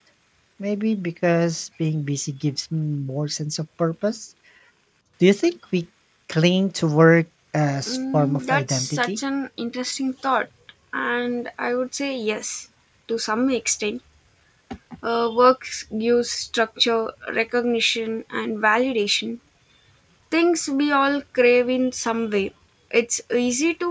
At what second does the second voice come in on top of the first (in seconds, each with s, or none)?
7.9 s